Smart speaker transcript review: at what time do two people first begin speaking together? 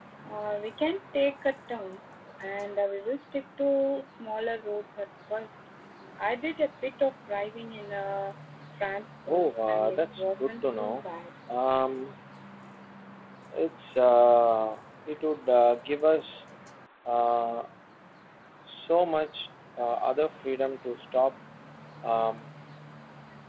9.3 s

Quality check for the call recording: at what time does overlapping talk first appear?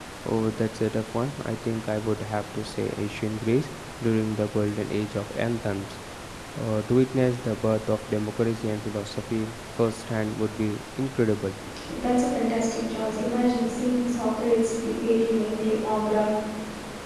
none

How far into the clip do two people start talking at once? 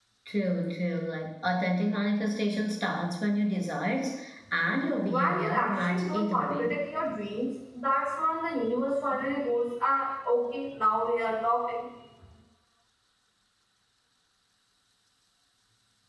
5.1 s

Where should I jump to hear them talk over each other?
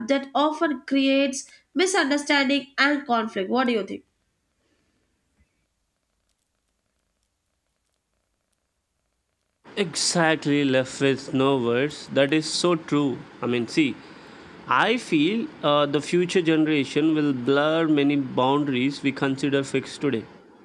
none

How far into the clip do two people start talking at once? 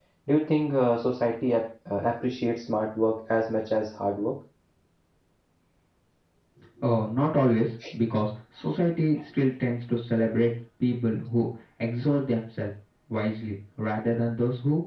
none

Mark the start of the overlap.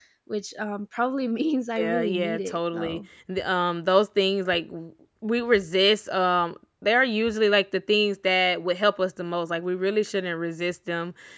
1.8 s

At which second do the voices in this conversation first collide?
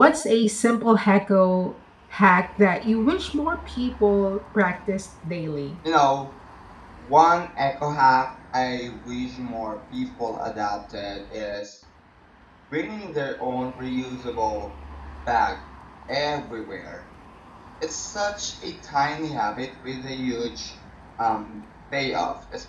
none

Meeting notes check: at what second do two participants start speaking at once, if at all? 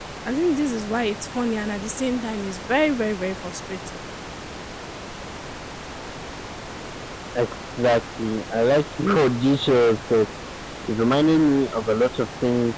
none

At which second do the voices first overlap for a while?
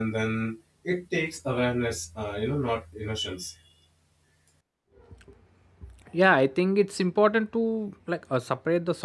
none

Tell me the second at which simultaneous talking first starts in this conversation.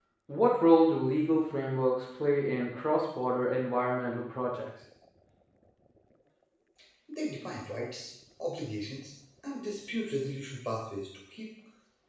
none

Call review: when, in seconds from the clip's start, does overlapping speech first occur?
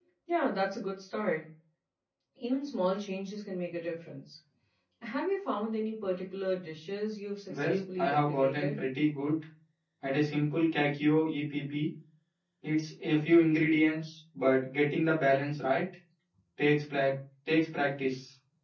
7.5 s

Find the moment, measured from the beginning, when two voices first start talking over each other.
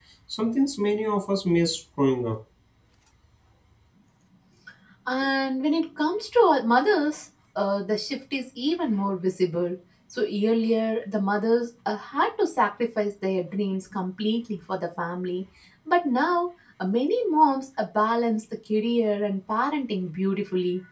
none

